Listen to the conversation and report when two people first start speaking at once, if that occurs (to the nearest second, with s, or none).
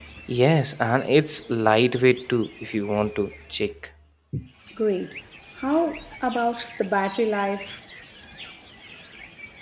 none